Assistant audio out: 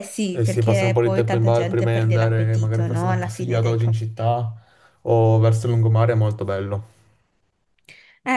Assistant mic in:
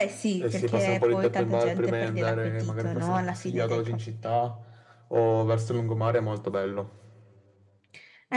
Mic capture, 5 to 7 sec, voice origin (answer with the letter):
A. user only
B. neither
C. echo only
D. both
C